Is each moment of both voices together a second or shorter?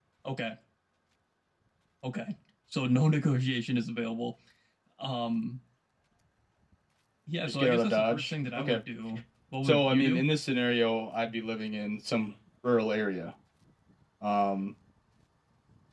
No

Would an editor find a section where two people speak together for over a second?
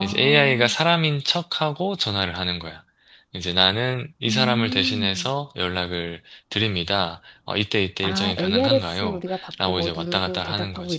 Yes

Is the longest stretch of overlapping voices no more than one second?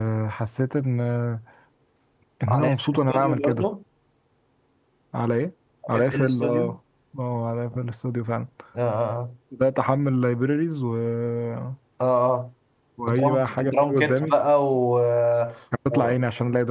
No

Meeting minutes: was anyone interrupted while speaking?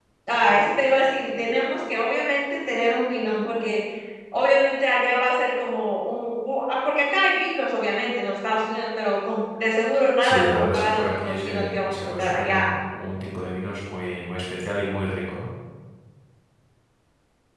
Yes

